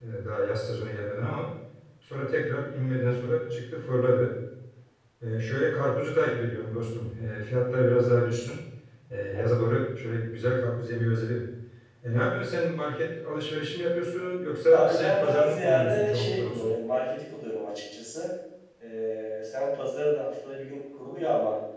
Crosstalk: present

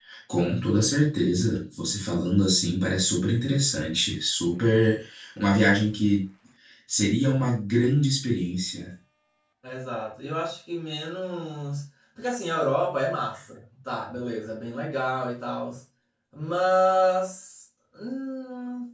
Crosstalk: none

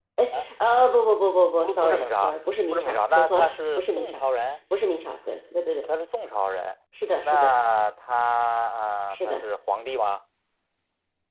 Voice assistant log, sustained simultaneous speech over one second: present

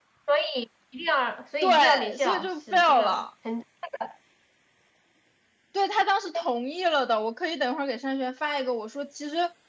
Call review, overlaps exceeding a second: present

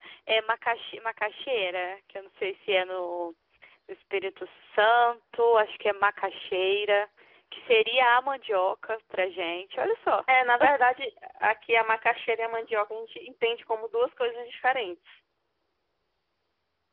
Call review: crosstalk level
none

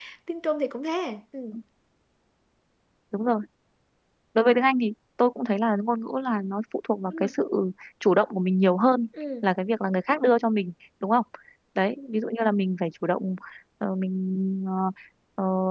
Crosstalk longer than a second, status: none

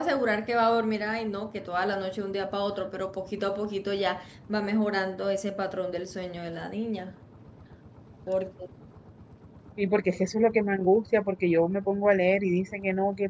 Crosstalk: none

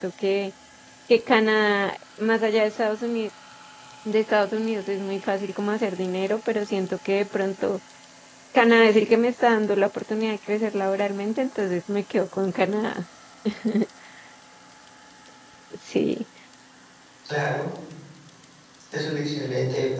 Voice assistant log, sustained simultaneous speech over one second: none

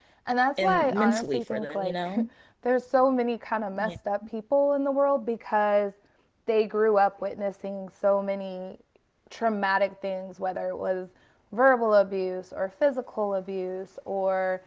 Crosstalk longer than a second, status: present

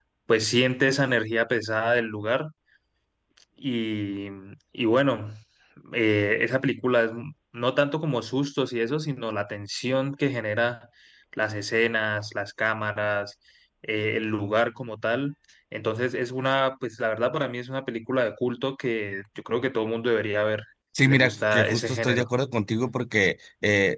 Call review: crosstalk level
present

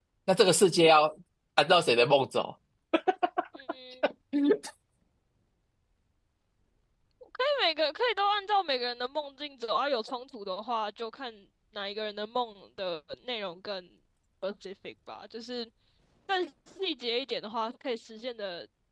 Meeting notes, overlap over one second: none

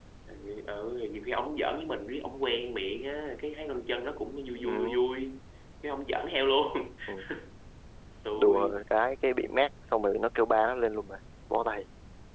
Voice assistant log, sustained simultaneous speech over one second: none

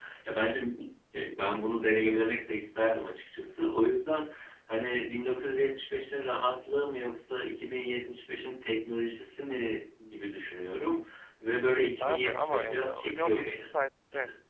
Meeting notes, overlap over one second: present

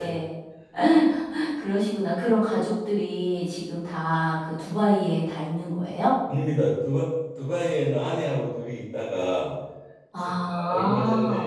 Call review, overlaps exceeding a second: present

